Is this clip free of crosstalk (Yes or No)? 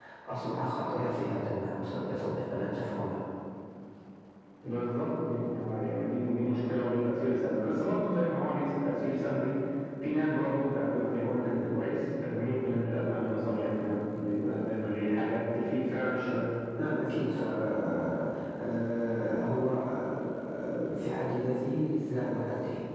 Yes